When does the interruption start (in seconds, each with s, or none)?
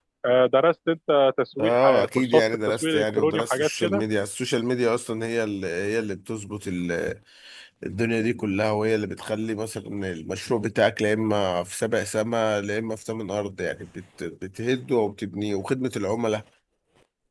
1.6 s